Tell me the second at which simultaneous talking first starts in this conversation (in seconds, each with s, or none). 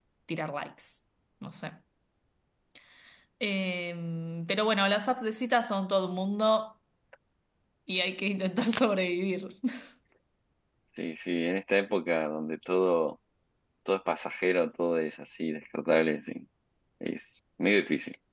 none